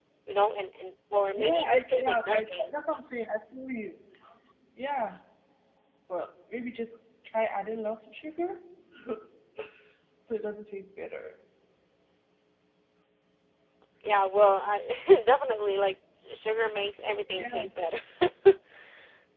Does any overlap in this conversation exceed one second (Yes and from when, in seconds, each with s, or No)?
Yes, from 1.4 s